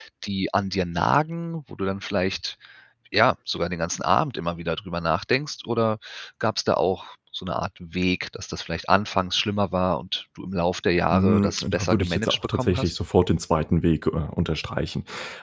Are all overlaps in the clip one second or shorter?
No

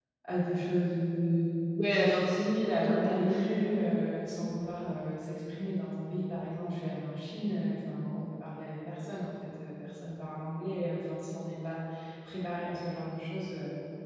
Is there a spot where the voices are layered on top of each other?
Yes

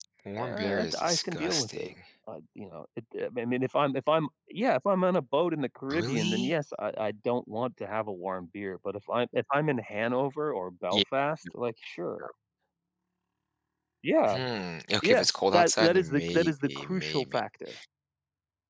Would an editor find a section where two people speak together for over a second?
Yes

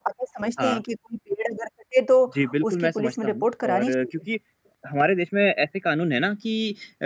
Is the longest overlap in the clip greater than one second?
Yes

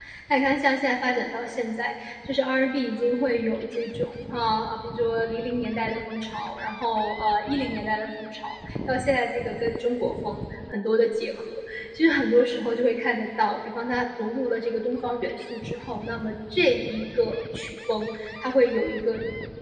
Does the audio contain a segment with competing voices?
No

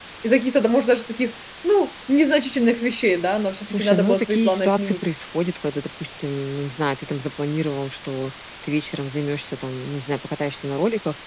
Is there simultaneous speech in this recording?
Yes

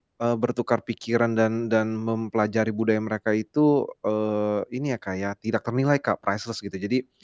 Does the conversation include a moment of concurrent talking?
No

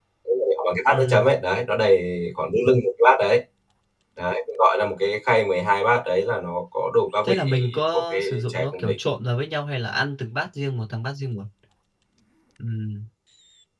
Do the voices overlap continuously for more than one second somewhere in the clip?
Yes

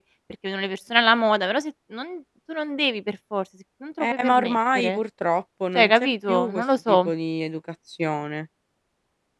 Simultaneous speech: Yes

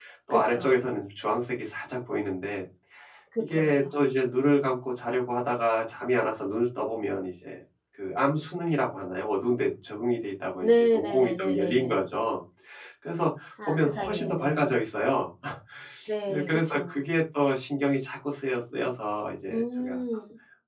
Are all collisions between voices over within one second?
No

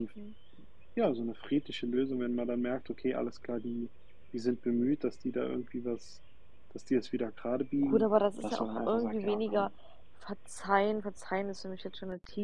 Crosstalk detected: Yes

